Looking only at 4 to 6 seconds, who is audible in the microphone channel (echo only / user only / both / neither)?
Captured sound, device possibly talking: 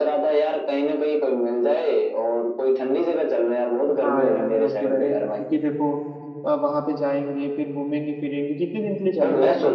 both